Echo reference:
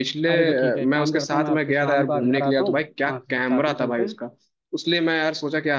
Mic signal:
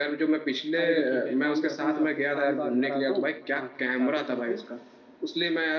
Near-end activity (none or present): none